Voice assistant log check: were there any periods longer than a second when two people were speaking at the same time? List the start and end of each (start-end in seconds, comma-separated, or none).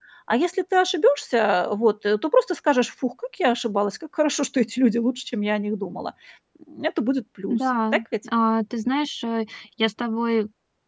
none